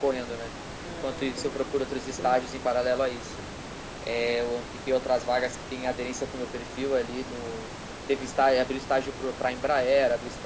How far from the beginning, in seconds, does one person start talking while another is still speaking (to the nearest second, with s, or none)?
1 s